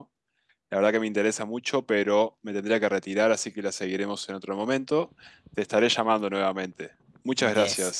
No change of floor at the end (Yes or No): No